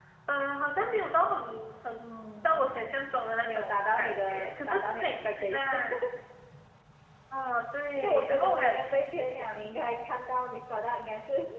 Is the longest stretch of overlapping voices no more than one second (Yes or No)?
No